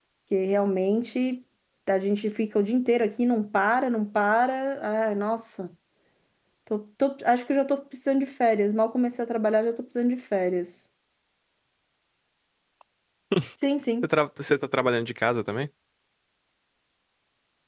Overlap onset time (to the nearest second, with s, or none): none